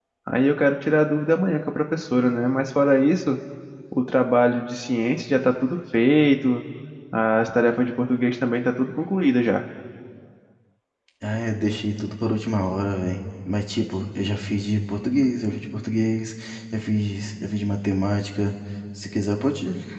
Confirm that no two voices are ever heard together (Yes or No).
Yes